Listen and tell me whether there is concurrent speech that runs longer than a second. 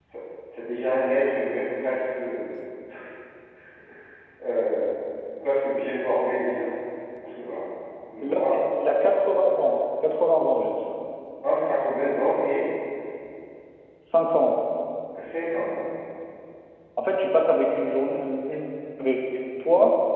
No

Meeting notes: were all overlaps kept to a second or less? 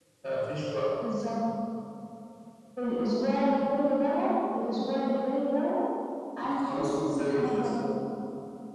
No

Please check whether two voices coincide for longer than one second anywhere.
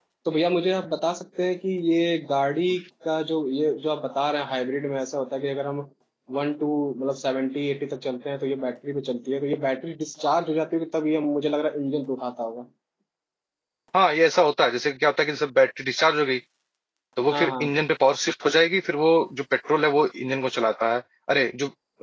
No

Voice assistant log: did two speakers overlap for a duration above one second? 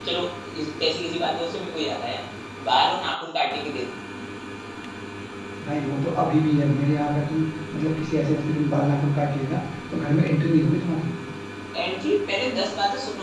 No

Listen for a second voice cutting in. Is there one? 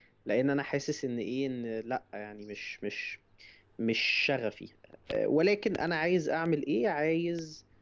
No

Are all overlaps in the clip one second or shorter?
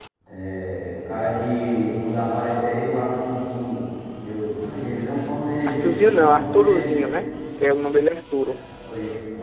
No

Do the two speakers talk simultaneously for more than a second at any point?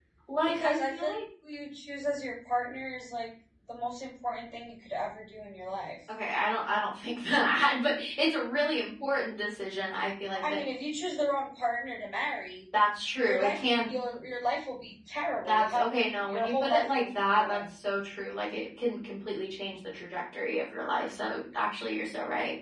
Yes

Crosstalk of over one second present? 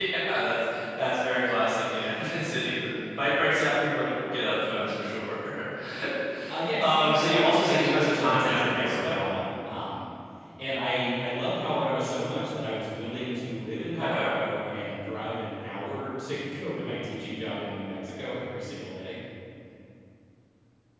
Yes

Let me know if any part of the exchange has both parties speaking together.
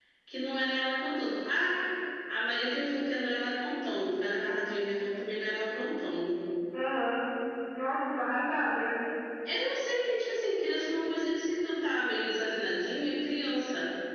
No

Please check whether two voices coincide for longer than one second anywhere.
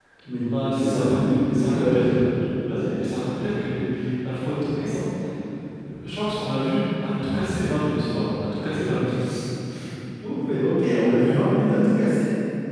Yes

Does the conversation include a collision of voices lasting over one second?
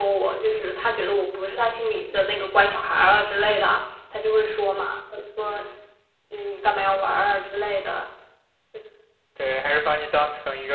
No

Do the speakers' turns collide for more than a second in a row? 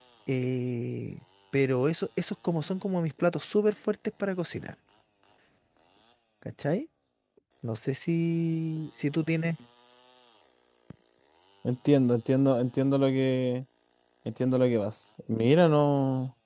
No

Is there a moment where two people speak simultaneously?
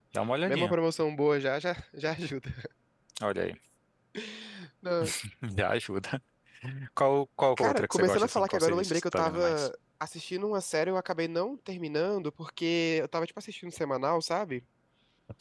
Yes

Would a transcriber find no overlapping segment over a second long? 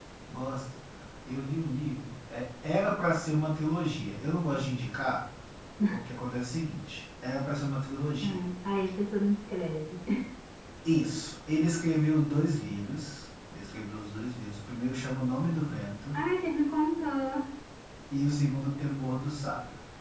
Yes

